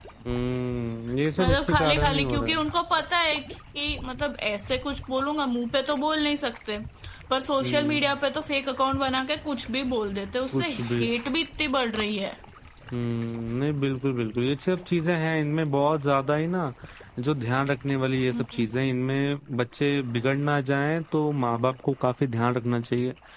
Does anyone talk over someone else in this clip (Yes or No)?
Yes